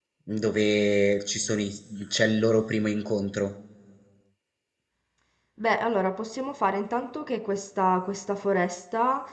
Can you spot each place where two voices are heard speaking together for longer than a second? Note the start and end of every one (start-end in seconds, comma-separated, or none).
none